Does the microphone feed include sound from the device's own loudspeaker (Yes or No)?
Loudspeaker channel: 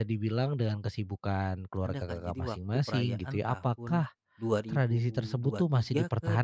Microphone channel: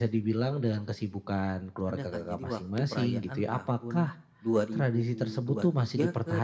Yes